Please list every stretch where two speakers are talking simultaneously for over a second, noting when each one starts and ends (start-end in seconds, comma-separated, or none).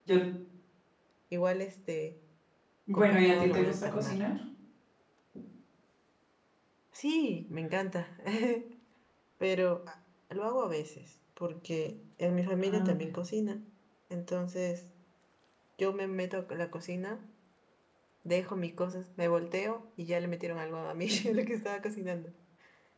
2.9-4.2